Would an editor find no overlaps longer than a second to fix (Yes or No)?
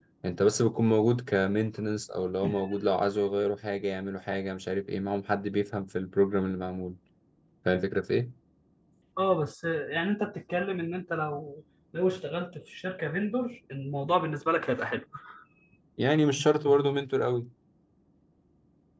Yes